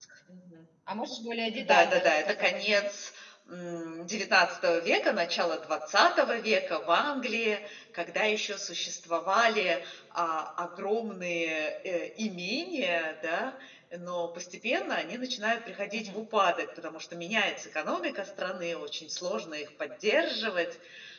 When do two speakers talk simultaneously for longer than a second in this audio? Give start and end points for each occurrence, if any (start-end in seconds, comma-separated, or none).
1.6-2.9